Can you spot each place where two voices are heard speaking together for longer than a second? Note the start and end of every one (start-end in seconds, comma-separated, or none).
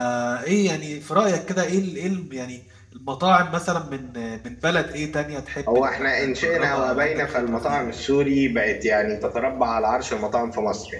5.8-8.0